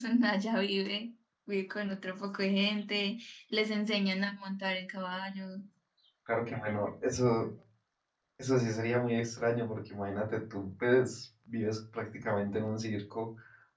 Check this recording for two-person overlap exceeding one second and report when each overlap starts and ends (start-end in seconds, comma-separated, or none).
none